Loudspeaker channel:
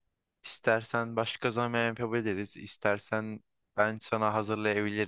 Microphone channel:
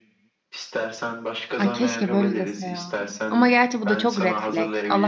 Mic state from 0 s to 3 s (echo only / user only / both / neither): both